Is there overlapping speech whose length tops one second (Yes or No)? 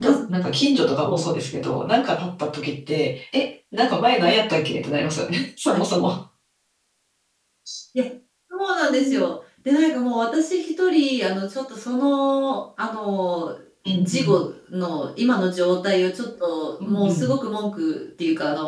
No